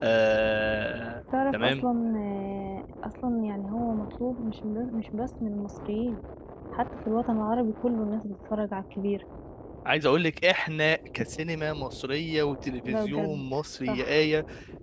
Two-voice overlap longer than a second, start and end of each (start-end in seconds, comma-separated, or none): none